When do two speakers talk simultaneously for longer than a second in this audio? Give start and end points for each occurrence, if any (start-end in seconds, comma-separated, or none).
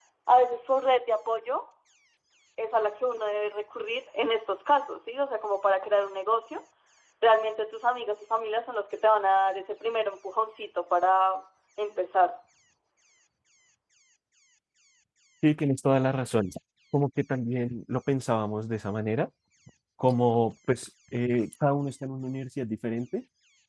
none